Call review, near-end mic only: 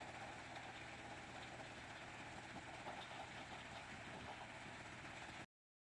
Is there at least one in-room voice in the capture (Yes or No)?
No